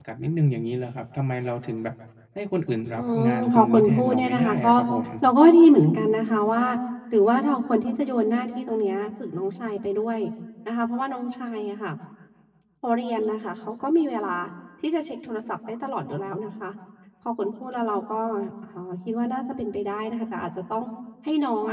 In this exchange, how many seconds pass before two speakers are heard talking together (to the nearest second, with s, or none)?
3 s